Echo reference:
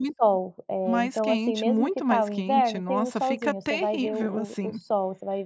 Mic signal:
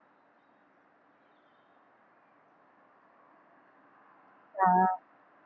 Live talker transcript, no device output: Dá.

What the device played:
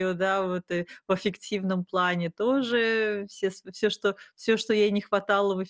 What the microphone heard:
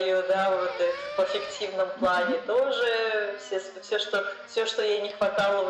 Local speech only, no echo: Мгм.

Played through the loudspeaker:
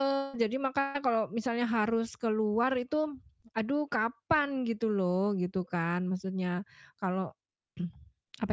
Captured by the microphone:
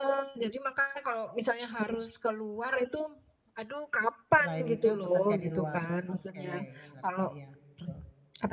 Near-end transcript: Selain itu bekerja di luar? Oke, ya ngerti ya, gitu.

